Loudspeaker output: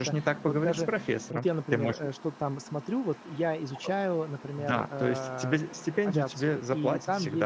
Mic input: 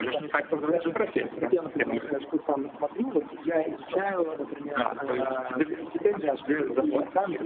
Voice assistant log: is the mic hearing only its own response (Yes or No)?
Yes